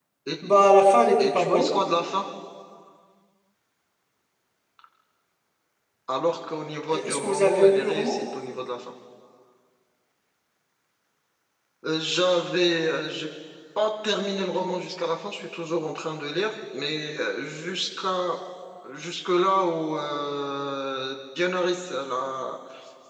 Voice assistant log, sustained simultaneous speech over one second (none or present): present